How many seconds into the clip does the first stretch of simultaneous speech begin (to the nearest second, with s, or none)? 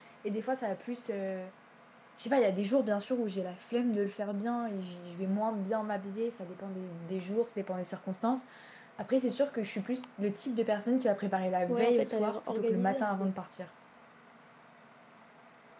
12 s